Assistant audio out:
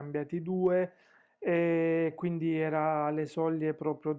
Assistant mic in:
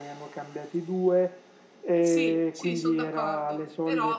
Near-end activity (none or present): present